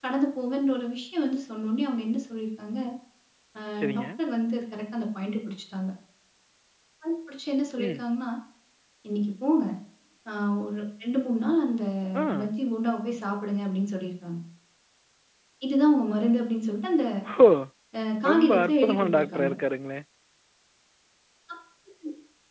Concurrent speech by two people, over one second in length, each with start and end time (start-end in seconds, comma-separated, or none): 18.3-19.5